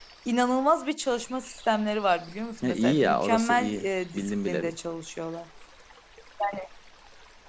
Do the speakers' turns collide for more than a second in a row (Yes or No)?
Yes